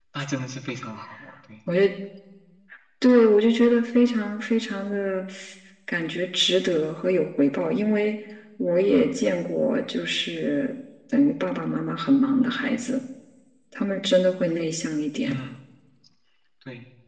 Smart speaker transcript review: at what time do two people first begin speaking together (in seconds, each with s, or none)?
none